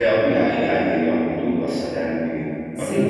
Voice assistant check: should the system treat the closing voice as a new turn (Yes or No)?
Yes